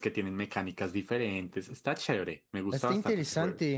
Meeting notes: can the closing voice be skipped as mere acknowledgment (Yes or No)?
No